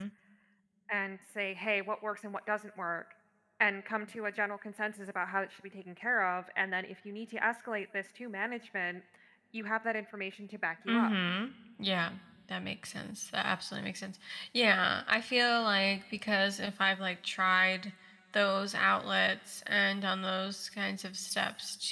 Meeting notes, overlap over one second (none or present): none